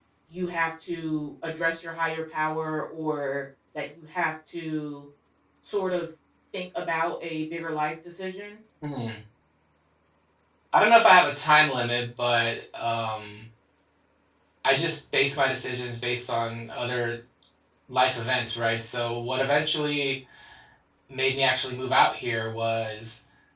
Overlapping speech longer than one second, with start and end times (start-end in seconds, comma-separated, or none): none